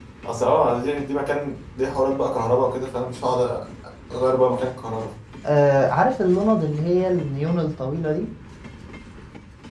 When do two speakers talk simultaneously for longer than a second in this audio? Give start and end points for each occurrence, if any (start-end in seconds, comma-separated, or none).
none